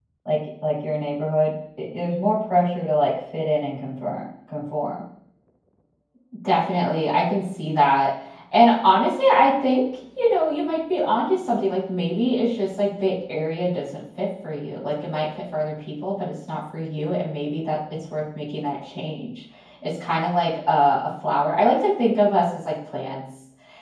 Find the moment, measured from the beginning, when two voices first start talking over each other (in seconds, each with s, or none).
none